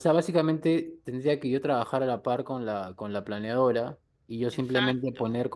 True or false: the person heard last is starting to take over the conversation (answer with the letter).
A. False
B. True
A